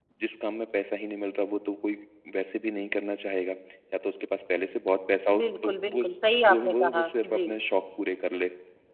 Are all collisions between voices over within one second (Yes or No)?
No